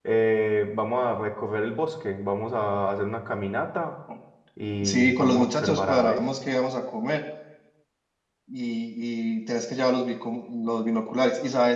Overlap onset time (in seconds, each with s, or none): 4.8 s